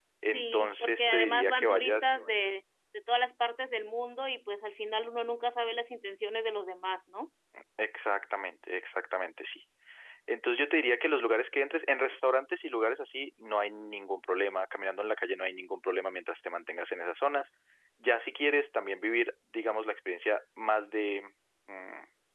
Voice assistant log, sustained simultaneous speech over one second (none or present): present